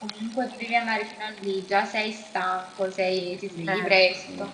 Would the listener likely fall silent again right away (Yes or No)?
Yes